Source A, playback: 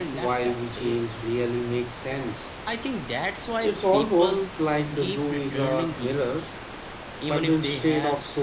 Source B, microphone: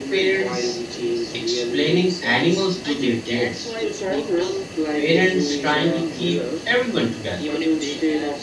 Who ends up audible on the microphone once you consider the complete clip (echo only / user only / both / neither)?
both